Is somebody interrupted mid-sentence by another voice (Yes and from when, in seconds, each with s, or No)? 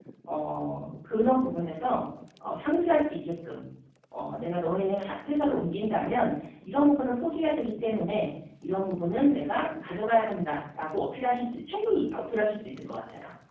No